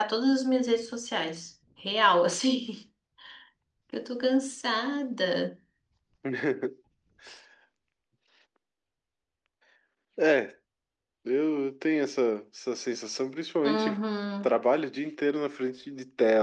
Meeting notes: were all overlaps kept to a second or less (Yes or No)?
Yes